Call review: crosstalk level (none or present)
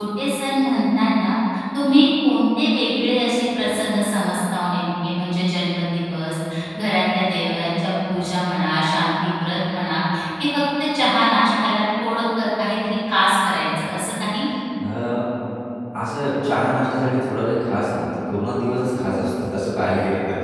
none